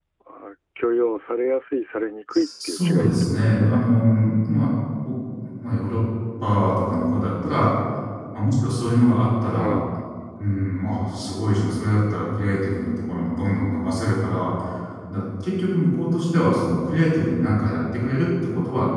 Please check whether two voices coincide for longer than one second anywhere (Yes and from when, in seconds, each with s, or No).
Yes, from 2.3 s